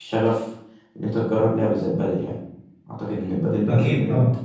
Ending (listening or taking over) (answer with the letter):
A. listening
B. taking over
B